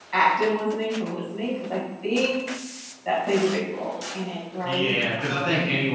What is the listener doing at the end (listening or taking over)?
taking over